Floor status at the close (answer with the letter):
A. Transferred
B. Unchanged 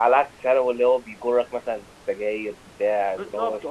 A